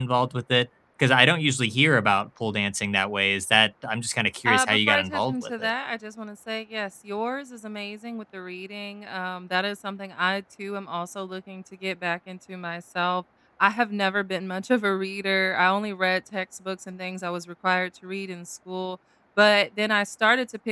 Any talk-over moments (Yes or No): Yes